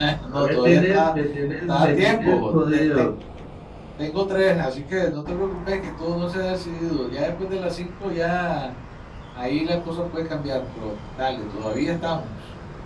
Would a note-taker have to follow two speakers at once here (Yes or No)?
Yes